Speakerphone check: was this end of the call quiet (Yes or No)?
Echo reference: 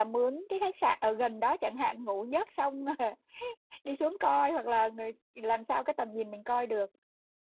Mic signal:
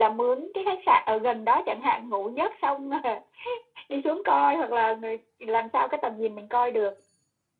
Yes